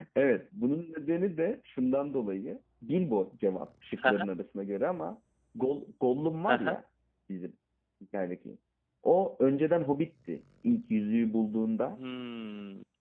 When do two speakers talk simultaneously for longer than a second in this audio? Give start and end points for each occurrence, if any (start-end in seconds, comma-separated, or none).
none